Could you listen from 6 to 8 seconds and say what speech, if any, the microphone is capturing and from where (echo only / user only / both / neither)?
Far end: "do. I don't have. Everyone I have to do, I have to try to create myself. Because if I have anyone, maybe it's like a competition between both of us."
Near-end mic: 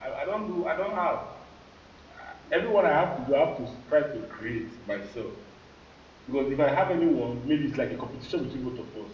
echo only